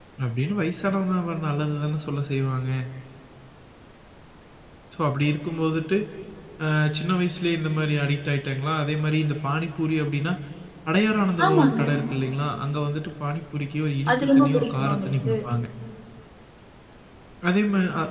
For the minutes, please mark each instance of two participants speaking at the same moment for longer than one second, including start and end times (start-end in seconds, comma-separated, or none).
14.1-15.3